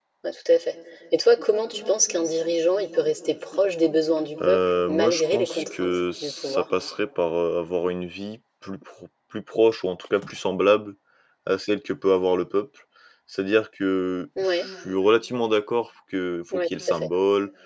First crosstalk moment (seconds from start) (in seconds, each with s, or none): 4.5 s